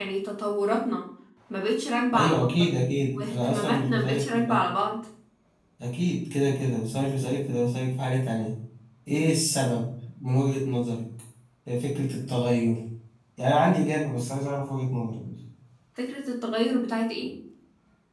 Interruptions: present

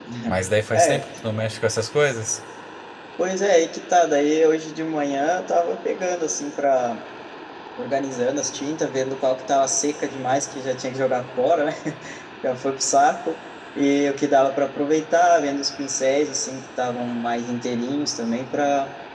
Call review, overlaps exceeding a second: none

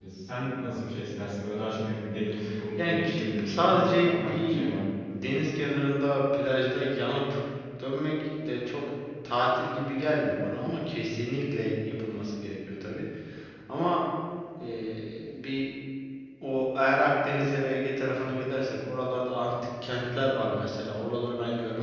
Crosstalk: present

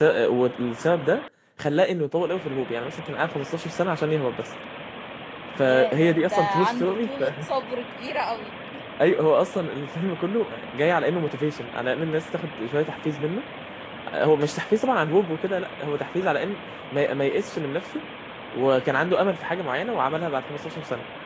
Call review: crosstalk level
present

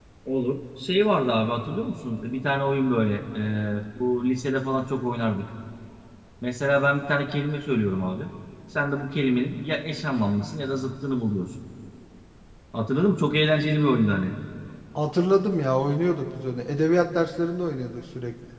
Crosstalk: none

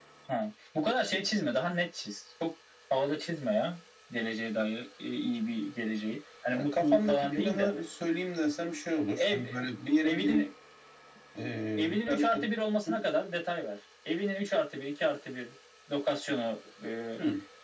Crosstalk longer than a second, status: present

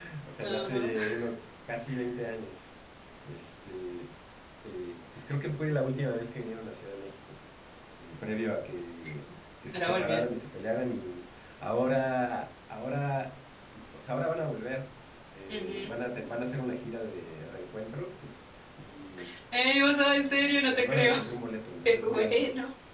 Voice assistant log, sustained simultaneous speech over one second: present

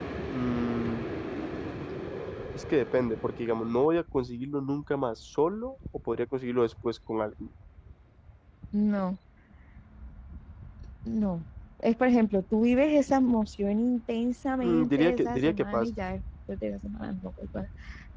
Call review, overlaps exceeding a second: present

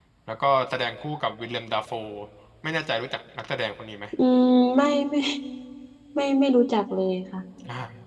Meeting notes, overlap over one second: none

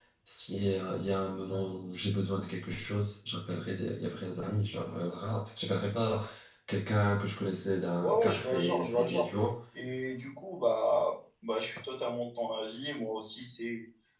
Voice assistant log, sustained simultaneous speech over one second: present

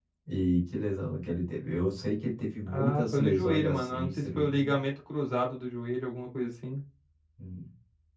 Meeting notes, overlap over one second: present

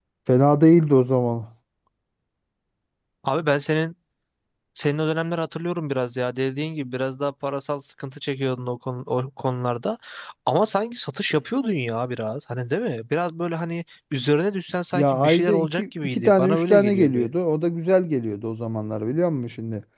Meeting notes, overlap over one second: present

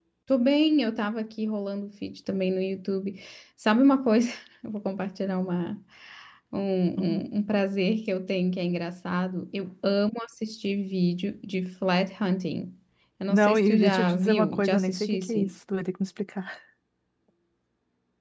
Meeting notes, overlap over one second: present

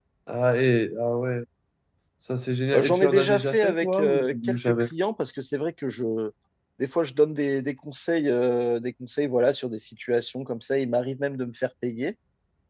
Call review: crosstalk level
present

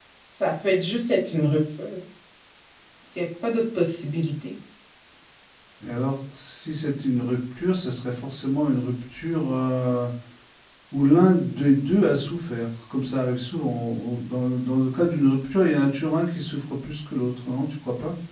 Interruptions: none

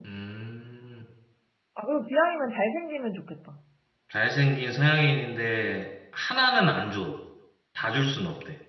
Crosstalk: none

